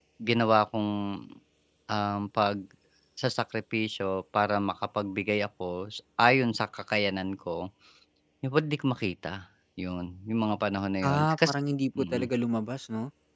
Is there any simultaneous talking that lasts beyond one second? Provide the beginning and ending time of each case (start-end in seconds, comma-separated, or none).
none